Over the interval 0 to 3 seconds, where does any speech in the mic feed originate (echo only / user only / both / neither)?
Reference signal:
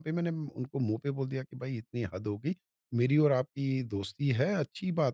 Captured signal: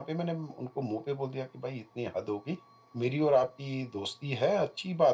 echo only